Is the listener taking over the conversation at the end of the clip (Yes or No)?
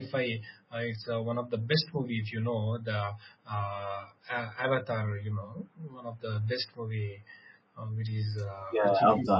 Yes